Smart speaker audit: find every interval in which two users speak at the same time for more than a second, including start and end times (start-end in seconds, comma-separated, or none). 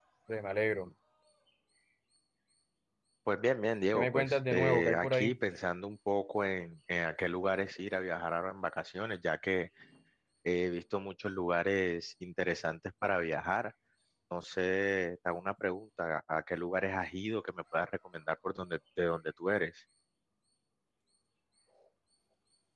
3.9-5.4